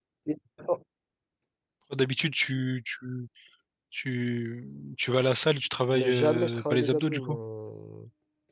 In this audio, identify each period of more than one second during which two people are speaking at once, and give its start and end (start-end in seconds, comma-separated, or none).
5.9-7.4